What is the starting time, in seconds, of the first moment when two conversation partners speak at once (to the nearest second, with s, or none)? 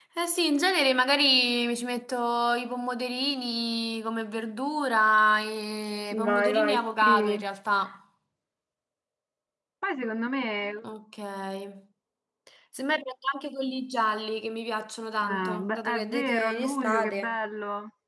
6 s